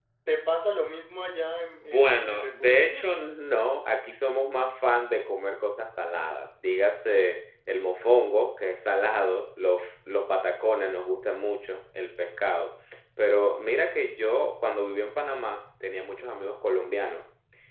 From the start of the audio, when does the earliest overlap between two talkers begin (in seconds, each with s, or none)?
1.8 s